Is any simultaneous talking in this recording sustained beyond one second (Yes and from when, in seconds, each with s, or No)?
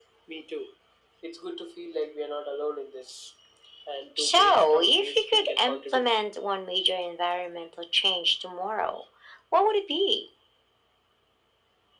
Yes, from 4.2 s